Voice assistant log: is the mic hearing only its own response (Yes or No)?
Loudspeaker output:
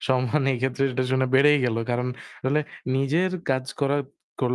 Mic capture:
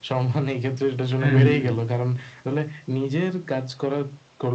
No